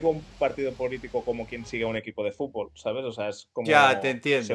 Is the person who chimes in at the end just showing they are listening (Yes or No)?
No